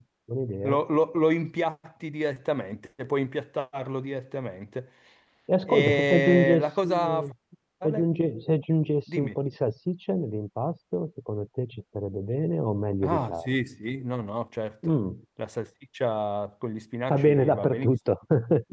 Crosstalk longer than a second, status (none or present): present